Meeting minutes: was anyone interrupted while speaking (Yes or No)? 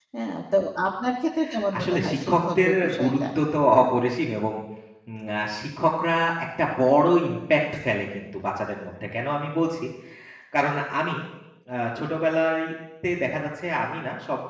Yes